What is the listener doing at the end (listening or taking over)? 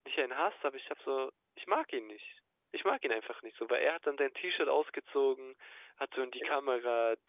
listening